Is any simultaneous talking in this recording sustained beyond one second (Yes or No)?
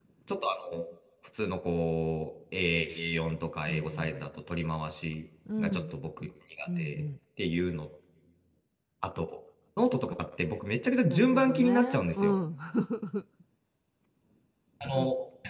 Yes